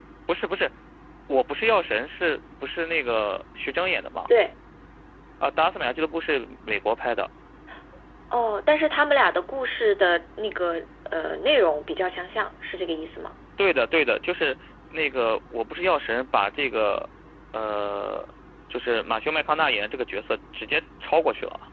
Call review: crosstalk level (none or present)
none